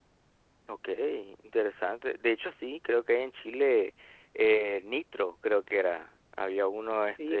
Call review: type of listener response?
taking over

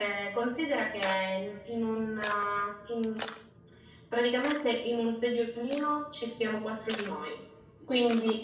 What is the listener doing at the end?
listening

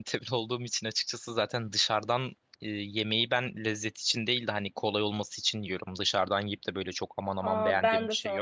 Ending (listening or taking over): taking over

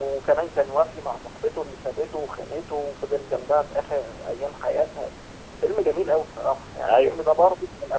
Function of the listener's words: listening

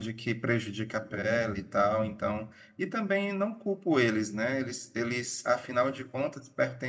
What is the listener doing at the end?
listening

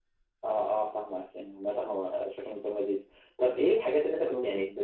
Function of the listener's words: listening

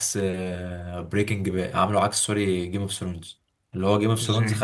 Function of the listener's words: listening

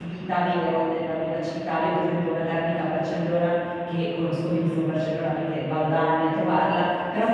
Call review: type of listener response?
listening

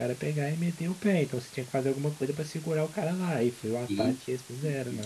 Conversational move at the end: taking over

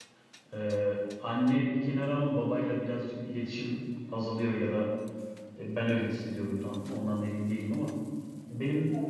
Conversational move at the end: listening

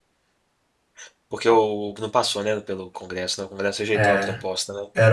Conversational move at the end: taking over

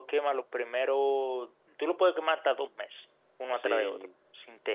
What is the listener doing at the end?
listening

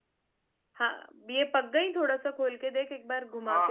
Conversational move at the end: taking over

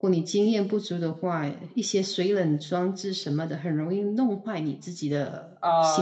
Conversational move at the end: taking over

